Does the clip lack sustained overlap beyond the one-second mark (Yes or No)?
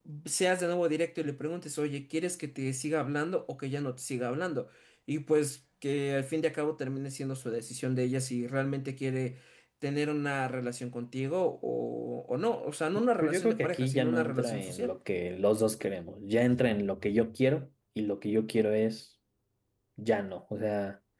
No